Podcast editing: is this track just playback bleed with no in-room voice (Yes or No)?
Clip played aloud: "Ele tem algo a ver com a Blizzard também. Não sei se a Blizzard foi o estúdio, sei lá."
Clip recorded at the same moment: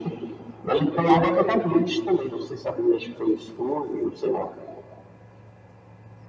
Yes